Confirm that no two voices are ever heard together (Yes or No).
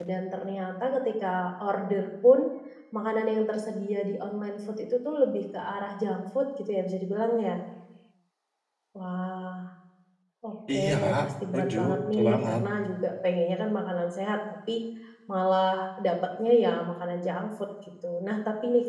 No